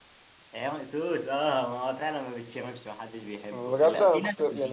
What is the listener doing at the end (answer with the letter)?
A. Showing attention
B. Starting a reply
B